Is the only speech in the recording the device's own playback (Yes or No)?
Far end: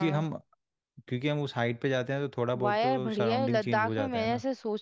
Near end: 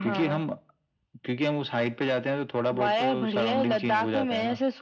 Yes